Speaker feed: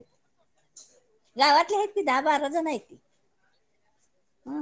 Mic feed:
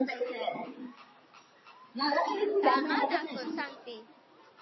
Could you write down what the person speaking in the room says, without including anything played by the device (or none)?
थांब हा दाखव- सांगती.